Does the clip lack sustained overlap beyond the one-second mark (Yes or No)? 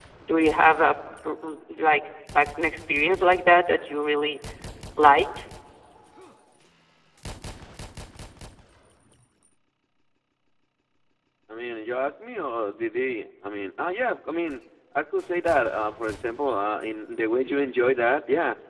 Yes